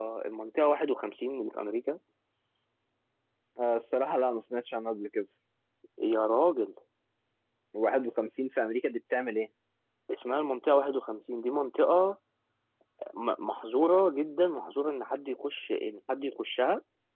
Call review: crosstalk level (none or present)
none